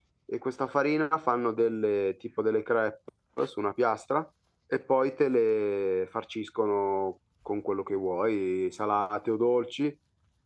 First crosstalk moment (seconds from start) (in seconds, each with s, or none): none